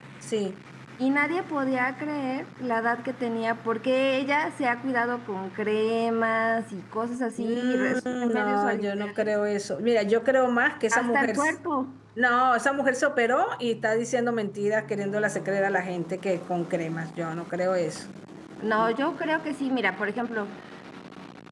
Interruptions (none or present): present